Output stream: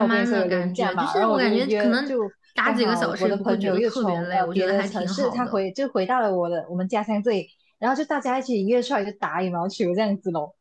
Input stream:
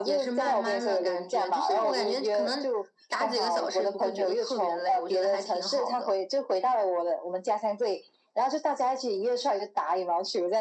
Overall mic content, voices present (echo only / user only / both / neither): echo only